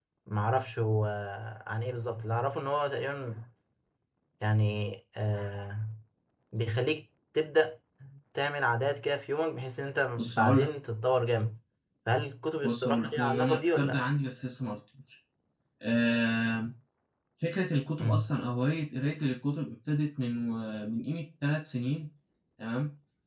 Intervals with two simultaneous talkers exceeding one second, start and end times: 12.6-14.0

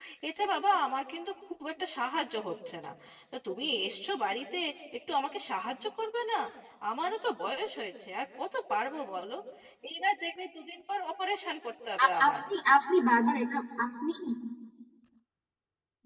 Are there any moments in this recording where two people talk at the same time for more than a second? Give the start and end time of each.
none

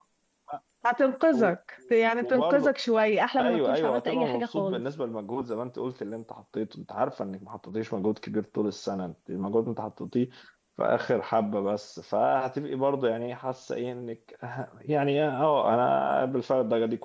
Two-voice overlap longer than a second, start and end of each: 3.4-4.8

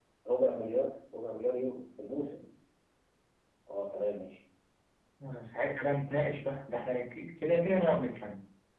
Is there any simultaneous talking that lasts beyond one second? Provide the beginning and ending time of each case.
none

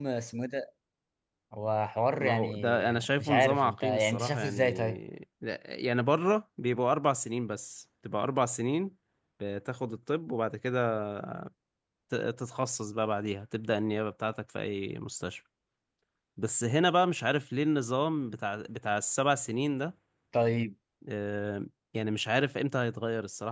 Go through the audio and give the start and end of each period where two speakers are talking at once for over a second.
2.2-5.0

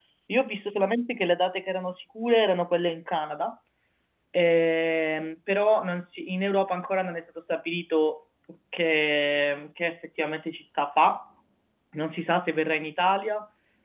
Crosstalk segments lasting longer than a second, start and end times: none

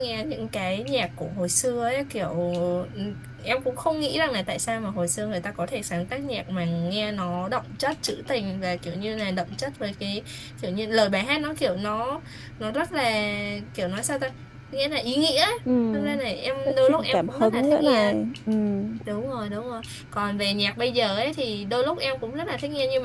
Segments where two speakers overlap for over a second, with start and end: 16.9-18.1

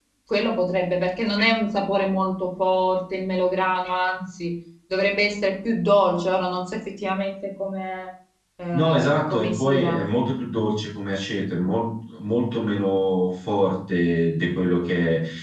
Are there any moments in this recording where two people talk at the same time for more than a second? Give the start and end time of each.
8.7-10.0

